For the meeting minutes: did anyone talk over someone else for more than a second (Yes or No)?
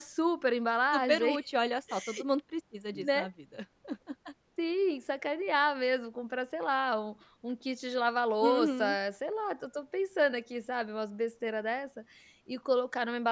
No